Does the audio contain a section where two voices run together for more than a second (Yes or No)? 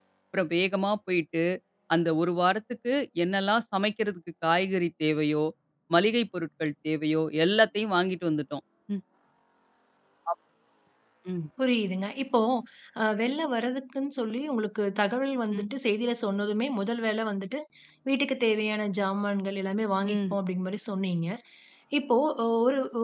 No